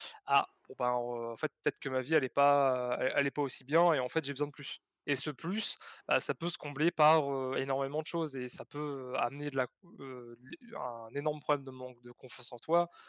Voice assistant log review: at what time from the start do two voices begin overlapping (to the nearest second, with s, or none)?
none